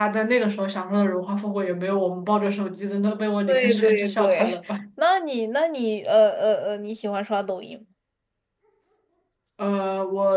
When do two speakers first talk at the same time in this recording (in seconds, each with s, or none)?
3.5 s